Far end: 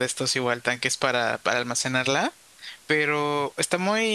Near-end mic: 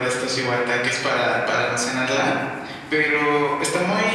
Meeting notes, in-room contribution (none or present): none